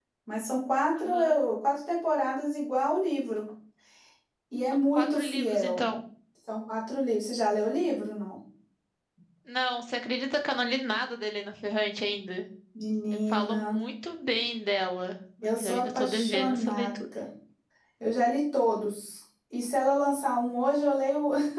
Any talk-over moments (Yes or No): Yes